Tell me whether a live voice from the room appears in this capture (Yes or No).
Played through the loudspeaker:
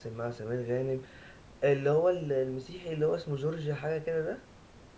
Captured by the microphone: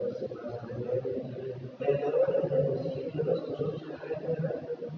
No